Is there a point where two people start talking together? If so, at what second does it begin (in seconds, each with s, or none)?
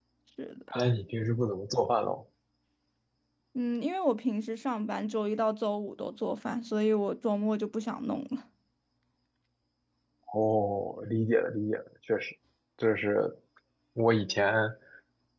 none